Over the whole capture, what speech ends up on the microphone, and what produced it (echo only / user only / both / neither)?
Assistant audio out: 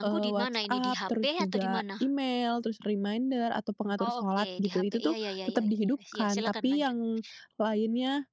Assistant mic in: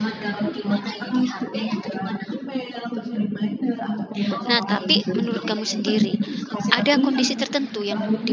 both